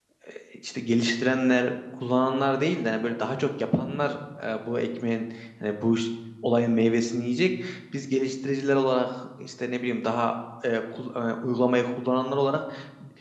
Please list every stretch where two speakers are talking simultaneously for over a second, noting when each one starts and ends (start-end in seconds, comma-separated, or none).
none